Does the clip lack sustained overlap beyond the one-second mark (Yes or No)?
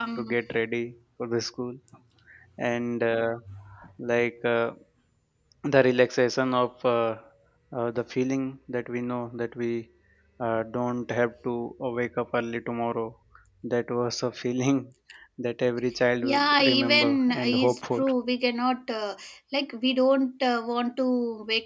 No